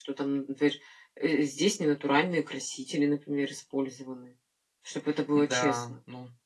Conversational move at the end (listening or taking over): taking over